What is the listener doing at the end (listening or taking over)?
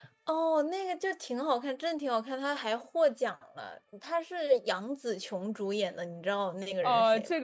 taking over